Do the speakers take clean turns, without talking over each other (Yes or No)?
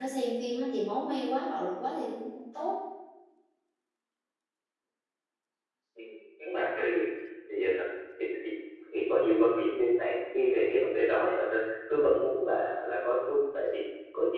Yes